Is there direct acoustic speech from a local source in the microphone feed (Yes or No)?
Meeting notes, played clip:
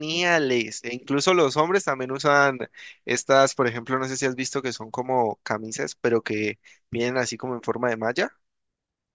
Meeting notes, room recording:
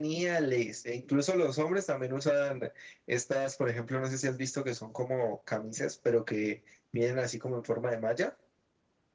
No